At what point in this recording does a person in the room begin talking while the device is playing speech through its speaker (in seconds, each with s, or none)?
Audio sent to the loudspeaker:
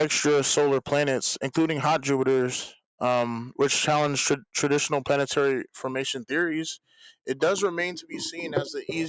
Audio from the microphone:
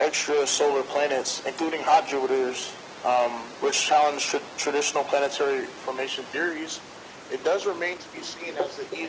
none